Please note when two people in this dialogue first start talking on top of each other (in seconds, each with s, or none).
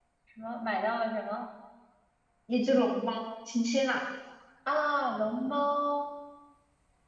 none